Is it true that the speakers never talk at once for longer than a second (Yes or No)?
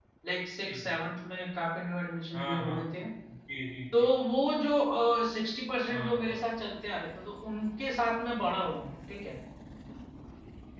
Yes